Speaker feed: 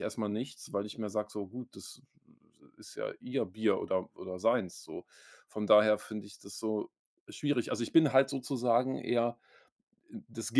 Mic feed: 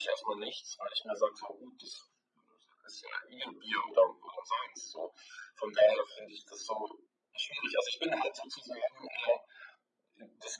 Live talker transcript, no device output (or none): none